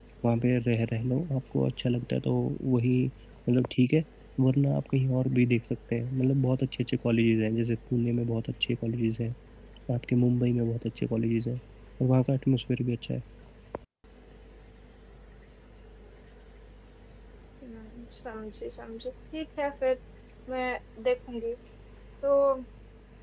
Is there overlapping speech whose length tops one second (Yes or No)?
No